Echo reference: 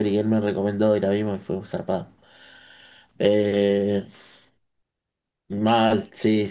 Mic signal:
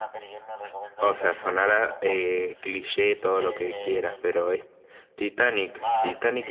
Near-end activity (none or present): present